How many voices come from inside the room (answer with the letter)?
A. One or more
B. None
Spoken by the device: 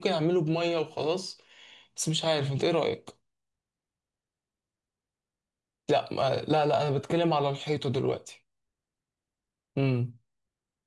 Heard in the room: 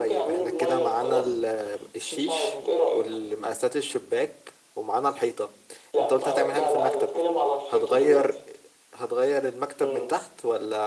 A